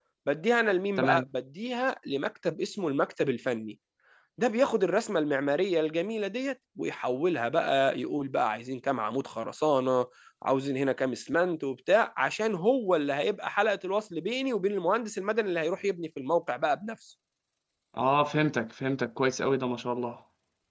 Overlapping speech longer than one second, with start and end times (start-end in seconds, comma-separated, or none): none